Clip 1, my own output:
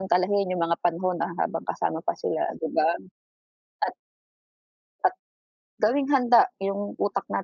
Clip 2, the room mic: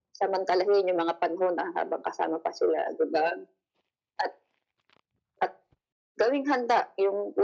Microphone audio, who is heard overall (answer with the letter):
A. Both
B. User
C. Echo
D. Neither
C